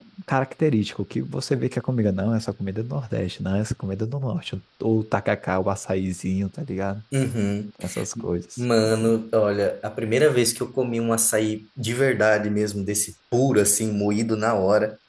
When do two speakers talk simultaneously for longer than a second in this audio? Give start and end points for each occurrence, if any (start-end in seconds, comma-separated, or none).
none